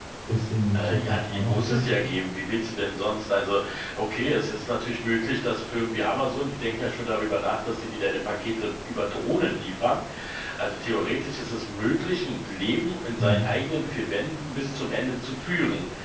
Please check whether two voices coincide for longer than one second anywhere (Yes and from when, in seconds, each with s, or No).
Yes, from 0.7 s